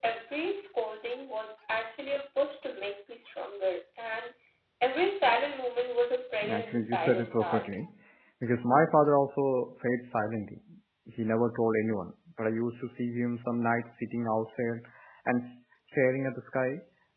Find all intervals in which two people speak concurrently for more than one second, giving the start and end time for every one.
6.5-7.8

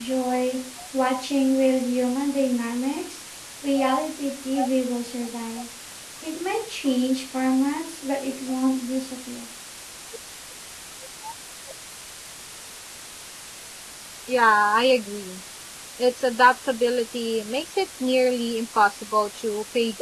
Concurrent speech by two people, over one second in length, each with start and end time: none

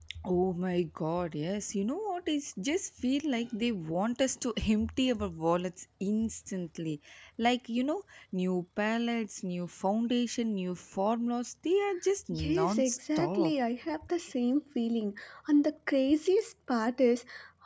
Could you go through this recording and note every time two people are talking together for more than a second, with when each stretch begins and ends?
12.3-13.5

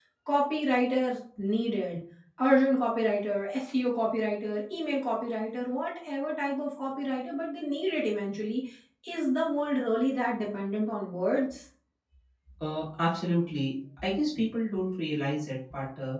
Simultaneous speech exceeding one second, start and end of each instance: none

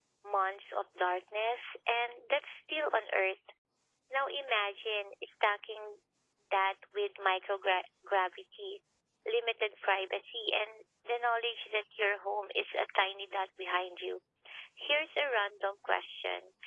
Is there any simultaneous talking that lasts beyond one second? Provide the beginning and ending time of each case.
none

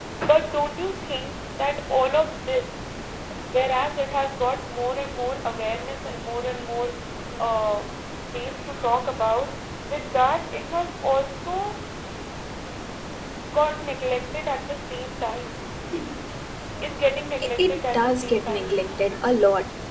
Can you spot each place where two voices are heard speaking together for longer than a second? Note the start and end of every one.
17.6-18.8

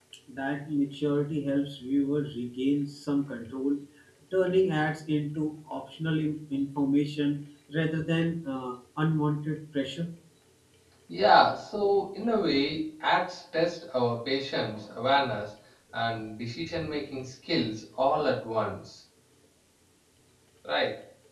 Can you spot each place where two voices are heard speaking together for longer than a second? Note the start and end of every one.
none

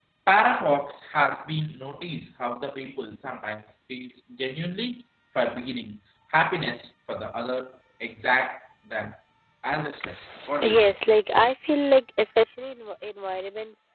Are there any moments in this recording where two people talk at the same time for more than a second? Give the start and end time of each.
none

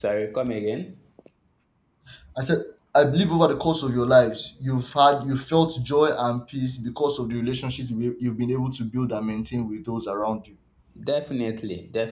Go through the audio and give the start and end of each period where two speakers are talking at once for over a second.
none

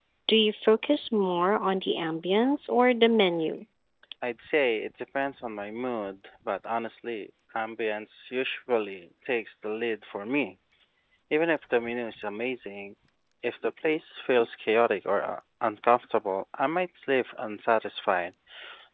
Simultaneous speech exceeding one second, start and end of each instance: none

